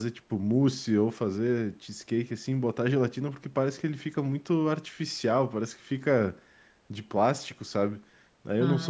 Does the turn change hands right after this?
No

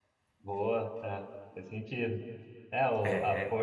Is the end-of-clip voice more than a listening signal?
No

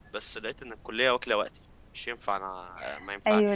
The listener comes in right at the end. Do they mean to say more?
Yes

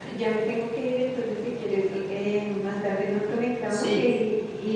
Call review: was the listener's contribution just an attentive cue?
Yes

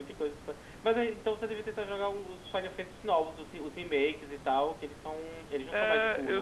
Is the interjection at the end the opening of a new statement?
Yes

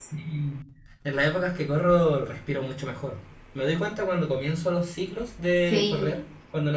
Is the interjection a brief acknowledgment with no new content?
Yes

